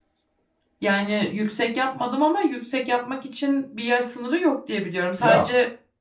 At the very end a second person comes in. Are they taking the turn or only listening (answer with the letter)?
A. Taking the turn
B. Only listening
B